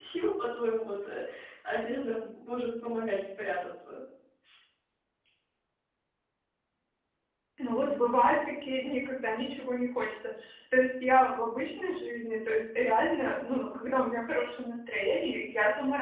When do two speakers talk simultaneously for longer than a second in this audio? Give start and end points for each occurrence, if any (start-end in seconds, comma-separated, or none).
none